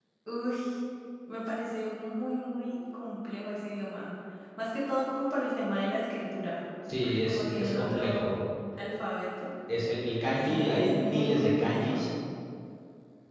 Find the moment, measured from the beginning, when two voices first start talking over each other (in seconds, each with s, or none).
7.0 s